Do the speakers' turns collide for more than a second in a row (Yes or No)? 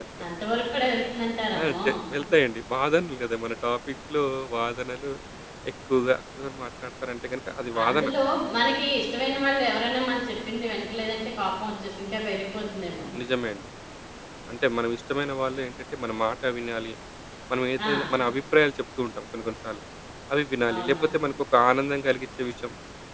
No